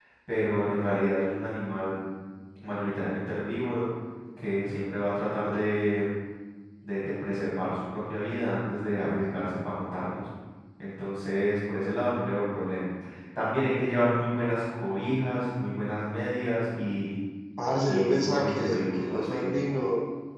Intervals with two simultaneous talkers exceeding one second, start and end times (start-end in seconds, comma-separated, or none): 17.8-19.5